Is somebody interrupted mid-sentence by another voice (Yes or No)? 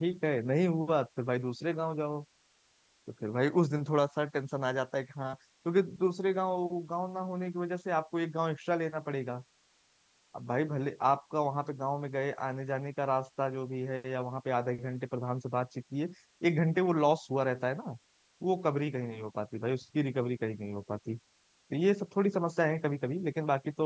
No